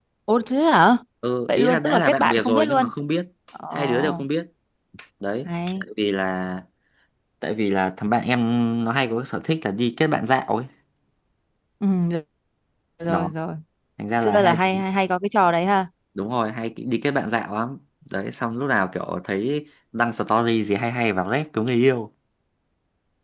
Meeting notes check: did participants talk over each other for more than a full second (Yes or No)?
Yes